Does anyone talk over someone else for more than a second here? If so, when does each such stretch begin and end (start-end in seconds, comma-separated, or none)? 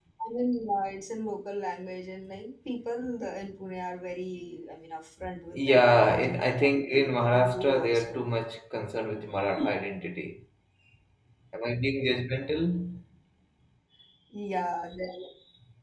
5.7-8.2